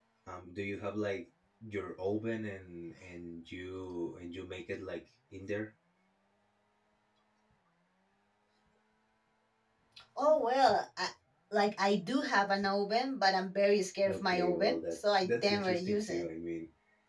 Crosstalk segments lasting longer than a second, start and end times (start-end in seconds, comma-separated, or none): 14.0-16.2